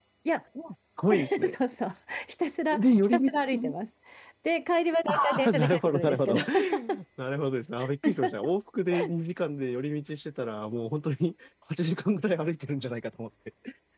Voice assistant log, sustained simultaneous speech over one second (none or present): present